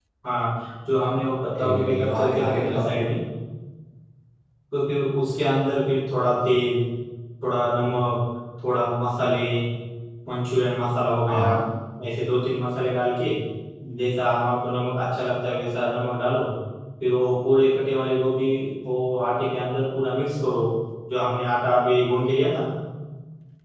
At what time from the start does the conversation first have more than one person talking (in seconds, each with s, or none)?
1.6 s